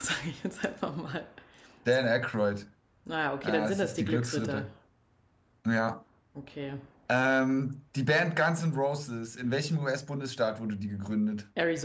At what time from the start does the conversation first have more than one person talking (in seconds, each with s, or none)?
3.4 s